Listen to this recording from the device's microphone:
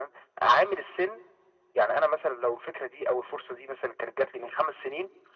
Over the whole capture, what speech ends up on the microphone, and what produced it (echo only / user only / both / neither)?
echo only